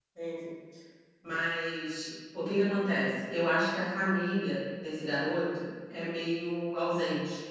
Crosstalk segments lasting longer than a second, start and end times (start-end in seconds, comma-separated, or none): none